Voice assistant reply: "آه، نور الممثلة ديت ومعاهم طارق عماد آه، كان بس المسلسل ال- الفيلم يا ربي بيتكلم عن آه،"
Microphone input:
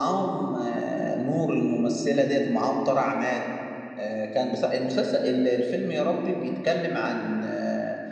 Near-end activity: none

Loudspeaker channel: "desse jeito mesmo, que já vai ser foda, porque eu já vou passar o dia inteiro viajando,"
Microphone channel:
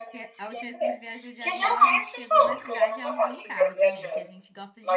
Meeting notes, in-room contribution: present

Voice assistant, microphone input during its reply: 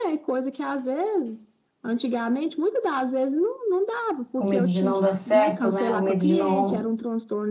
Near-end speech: present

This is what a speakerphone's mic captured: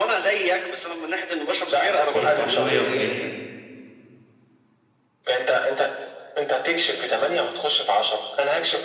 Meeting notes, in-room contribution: present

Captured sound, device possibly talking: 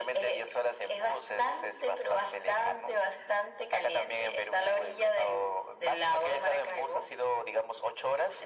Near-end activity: none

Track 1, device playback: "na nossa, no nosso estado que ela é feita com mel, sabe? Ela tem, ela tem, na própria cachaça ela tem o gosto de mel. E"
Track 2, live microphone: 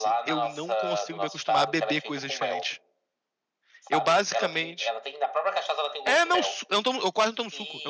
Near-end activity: present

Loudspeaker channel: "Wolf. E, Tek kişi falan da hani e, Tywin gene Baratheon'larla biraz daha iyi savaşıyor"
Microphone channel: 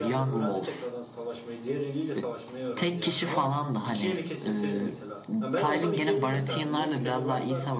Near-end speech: present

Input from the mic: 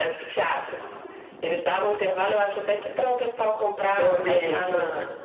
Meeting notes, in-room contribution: present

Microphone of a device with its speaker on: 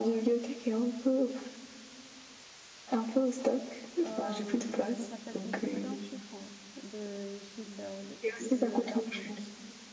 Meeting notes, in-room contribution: present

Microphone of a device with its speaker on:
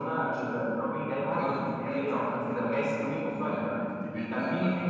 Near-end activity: none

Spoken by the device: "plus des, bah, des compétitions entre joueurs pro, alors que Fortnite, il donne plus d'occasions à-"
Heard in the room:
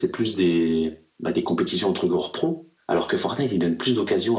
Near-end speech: none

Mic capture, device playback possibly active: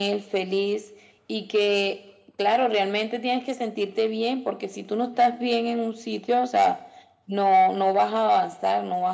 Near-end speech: none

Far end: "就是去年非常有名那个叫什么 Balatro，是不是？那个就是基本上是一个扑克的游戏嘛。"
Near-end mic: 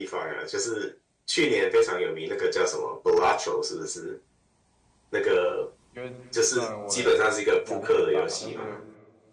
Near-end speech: present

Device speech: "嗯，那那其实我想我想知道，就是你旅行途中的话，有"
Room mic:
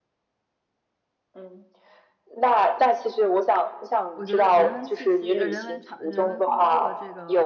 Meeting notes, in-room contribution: present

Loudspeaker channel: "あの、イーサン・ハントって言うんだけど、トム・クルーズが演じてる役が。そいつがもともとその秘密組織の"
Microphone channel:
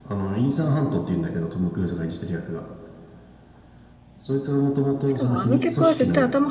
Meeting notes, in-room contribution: present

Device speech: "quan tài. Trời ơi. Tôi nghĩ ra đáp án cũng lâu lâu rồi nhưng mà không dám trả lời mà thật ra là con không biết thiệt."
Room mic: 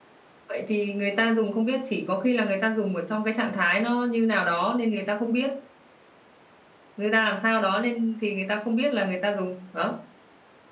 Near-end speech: present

